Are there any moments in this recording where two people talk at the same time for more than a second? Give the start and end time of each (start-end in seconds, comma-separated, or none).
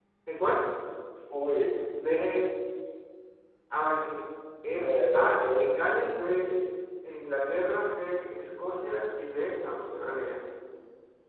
4.8-6.0